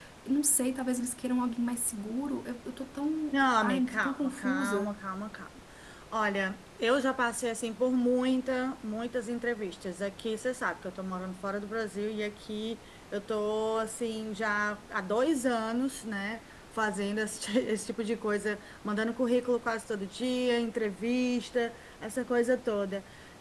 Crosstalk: present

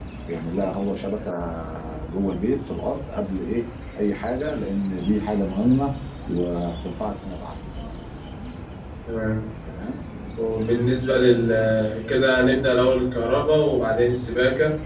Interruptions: none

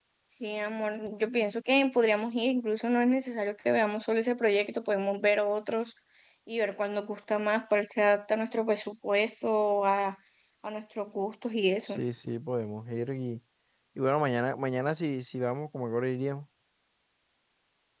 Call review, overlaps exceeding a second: none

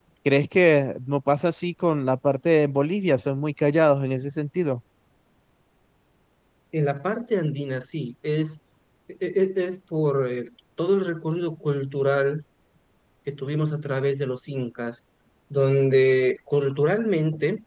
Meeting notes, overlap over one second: none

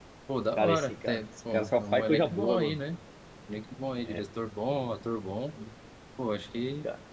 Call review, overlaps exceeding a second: present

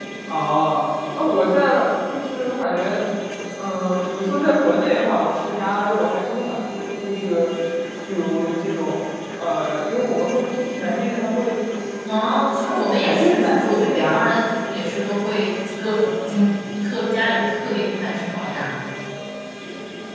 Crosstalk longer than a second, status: present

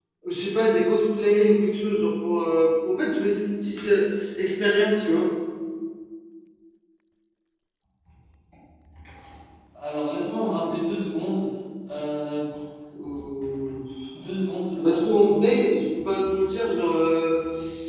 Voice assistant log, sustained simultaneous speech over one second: none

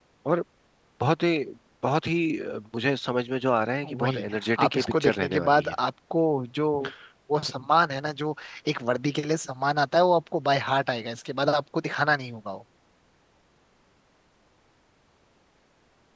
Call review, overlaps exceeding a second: present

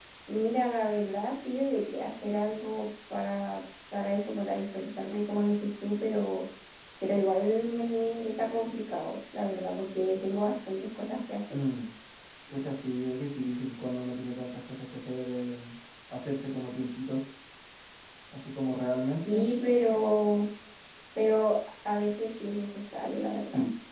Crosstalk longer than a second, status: none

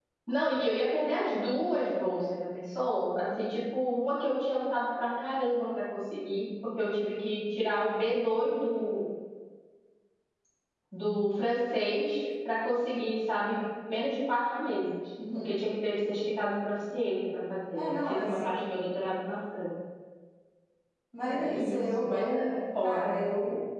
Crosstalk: present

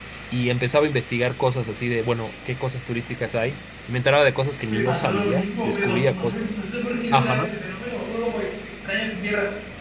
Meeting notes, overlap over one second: present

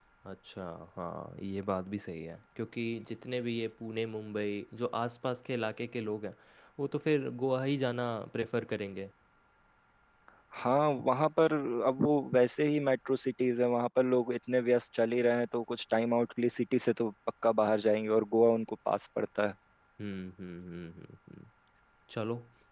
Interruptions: none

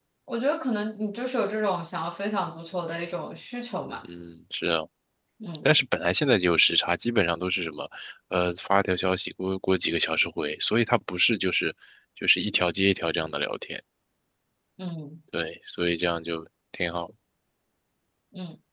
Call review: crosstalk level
none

